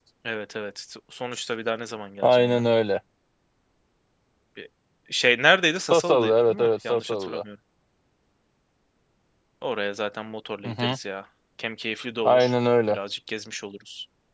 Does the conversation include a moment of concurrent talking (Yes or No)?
Yes